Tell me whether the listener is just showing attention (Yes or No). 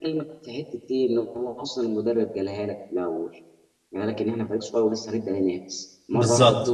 Yes